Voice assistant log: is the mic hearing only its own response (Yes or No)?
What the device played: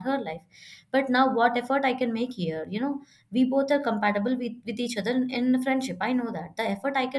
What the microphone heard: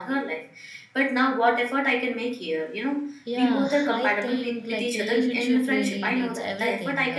No